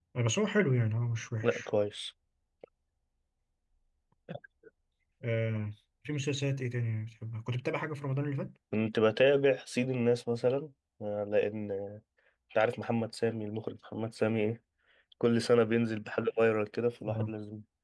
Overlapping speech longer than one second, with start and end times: none

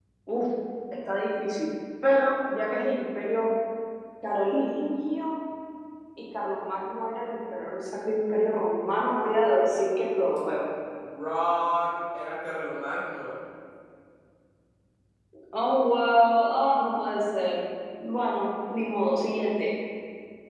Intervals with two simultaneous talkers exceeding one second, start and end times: none

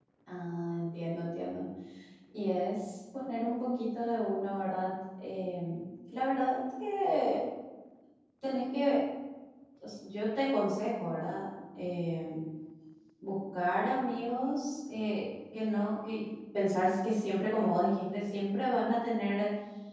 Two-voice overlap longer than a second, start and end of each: none

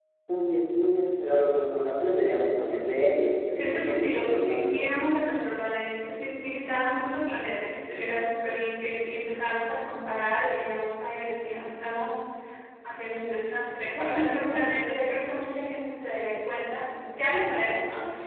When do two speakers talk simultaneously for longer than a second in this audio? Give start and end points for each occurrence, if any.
3.6-4.8

